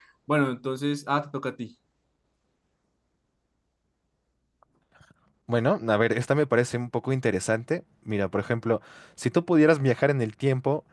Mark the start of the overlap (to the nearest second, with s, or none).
none